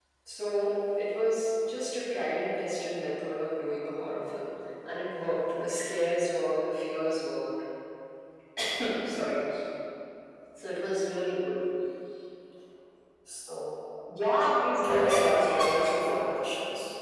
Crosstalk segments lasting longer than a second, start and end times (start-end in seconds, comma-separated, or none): 14.8-16.4